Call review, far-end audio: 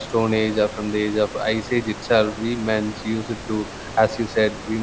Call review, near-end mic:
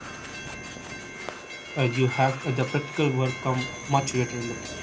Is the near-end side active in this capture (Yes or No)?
Yes